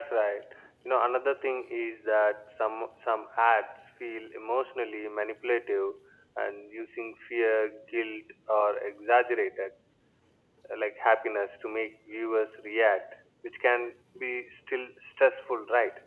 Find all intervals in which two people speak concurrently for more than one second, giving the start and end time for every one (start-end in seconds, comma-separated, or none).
none